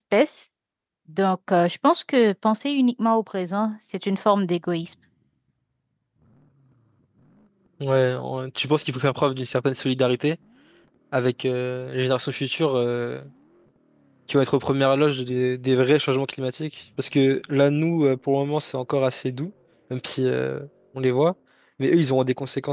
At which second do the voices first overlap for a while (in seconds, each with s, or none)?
none